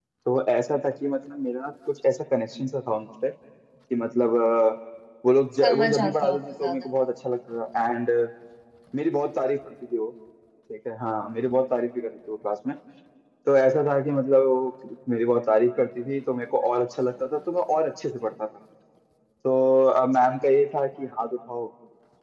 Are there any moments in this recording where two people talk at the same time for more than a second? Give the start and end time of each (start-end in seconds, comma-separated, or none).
5.6-6.9